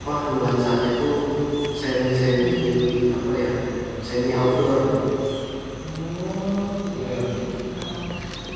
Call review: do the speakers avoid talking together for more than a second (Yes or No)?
Yes